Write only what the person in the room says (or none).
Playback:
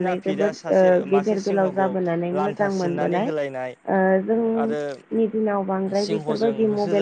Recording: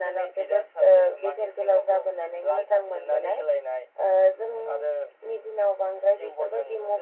none